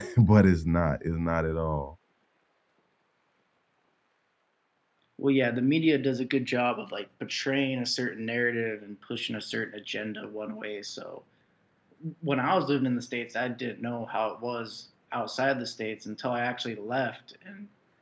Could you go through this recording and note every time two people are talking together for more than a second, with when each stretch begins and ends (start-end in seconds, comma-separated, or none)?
none